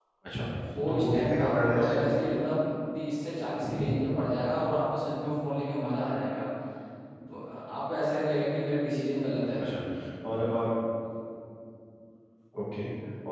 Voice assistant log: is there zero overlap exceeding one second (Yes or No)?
No